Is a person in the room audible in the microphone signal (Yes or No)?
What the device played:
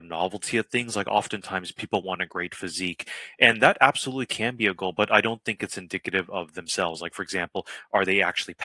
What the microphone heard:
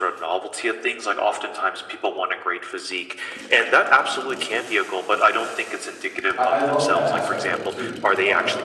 Yes